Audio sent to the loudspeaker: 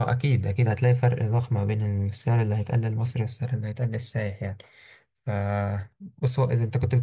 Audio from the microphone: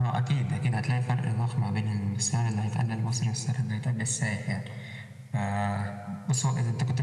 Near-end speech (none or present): none